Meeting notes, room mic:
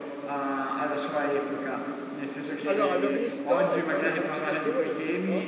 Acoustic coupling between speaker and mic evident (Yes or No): Yes